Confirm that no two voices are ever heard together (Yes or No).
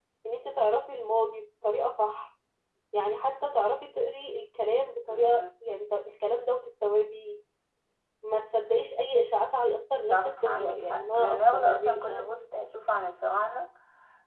No